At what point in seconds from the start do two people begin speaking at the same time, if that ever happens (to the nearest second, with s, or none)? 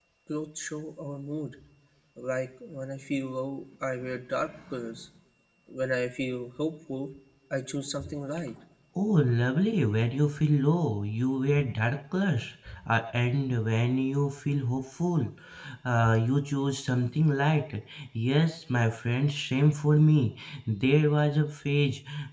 none